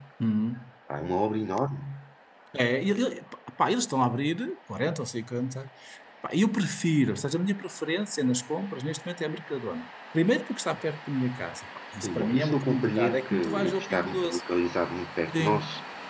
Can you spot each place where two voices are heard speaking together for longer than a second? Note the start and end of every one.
12.0-14.4

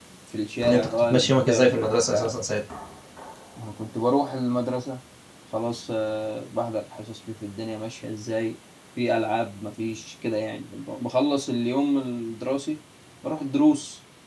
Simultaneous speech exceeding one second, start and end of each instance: 0.7-2.4

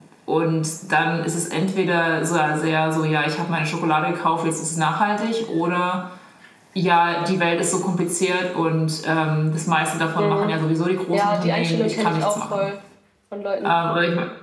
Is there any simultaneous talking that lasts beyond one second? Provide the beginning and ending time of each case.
11.1-12.7

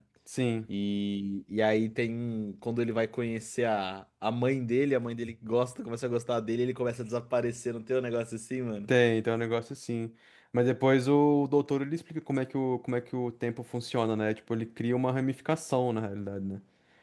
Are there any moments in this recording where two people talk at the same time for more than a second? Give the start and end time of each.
none

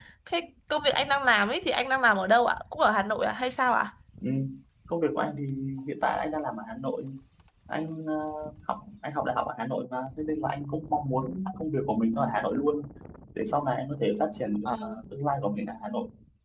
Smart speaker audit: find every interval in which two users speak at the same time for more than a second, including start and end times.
none

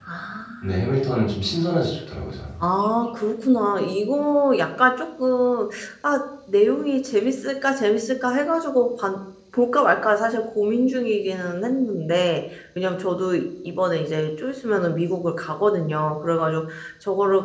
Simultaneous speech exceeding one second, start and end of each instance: none

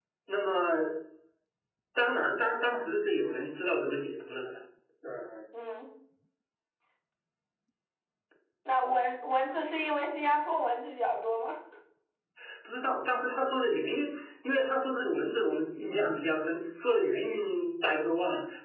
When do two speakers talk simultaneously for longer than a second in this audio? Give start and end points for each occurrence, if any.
none

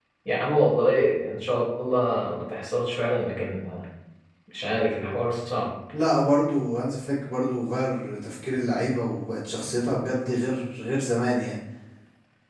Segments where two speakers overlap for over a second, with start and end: none

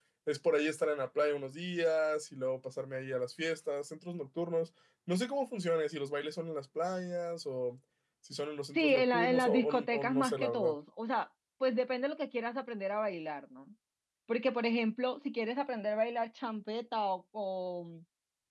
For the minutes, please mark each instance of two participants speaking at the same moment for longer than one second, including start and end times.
8.8-10.8

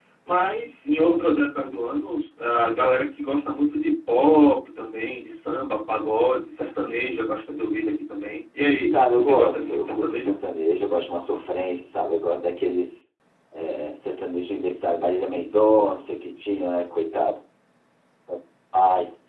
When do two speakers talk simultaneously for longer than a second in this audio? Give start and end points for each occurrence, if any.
8.9-10.3

